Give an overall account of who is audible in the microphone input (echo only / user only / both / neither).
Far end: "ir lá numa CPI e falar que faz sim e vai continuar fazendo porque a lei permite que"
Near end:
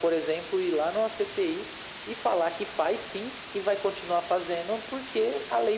echo only